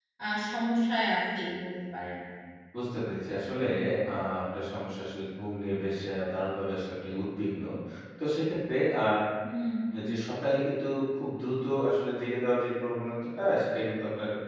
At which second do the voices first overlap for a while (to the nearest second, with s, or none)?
none